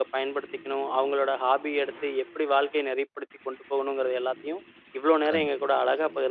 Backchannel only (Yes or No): Yes